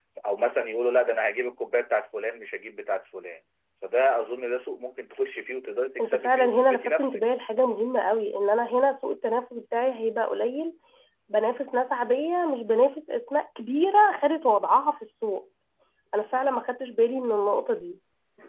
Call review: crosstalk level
present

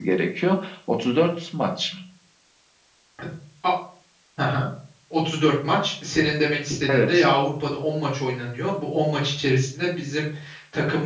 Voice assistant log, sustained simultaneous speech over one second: none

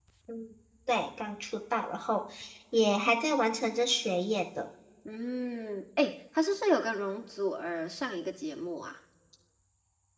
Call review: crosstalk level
none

